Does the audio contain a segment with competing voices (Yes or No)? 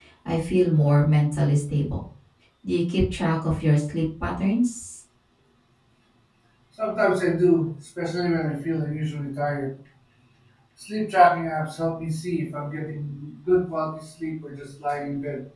No